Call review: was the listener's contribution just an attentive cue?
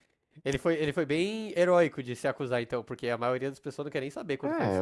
No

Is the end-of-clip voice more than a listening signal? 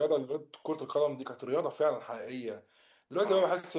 No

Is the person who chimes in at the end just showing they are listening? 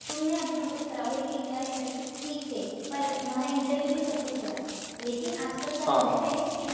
Yes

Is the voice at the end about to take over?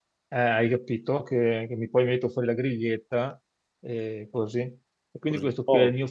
No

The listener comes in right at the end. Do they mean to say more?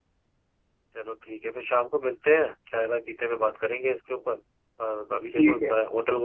No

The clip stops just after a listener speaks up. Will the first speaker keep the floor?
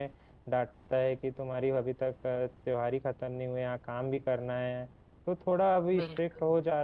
Yes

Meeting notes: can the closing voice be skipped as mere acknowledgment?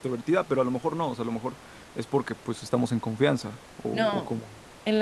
No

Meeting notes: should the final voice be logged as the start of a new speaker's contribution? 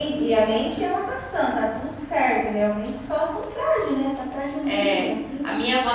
Yes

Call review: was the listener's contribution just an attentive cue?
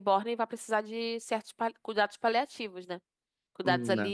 Yes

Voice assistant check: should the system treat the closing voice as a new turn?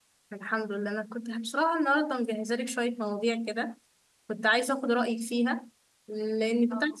No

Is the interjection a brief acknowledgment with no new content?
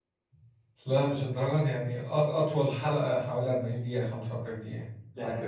No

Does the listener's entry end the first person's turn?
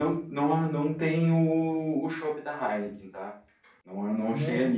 No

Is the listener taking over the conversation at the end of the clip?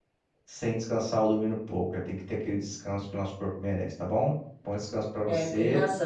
Yes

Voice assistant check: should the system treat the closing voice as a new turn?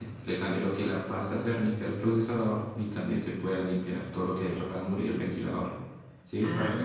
No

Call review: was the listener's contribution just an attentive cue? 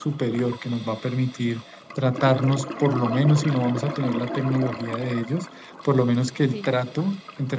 Yes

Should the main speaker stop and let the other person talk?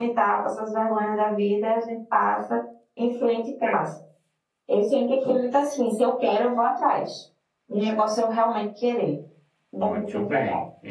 Yes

